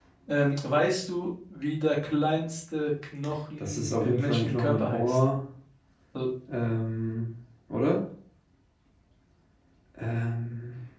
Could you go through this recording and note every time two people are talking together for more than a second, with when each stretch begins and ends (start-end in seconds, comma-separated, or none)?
3.6-5.2